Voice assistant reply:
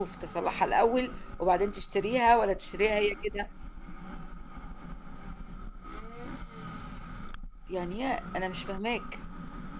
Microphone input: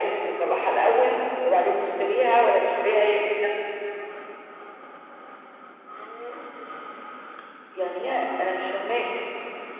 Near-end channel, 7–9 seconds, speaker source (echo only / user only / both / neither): echo only